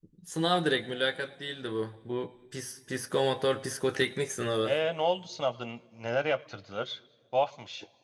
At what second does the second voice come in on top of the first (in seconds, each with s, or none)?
none